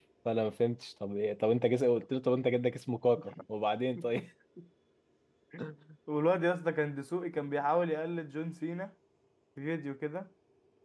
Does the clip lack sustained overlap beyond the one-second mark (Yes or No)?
Yes